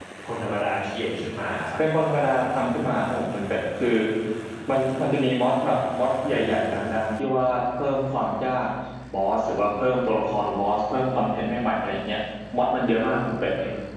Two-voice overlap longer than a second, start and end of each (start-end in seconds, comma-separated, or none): none